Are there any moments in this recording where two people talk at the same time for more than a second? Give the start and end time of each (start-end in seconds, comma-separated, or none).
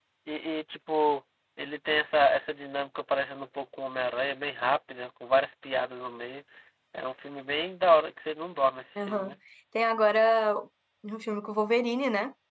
none